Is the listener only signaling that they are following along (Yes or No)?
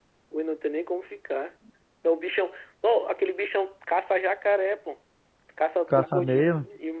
Yes